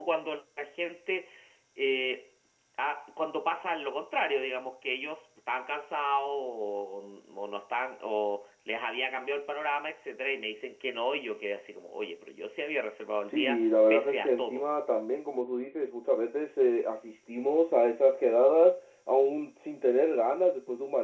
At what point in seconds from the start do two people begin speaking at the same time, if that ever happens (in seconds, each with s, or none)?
13.2 s